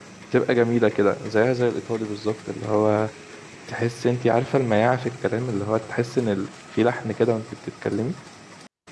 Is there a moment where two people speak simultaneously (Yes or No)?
No